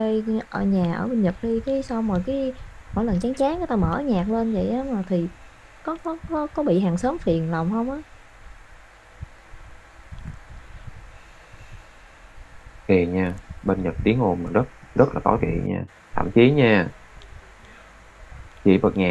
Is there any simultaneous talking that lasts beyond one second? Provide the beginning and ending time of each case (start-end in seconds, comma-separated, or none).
none